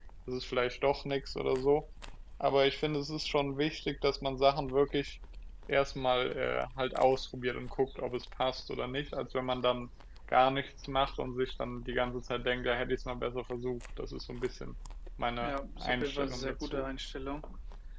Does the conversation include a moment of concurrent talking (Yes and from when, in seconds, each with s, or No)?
Yes, from 15.4 s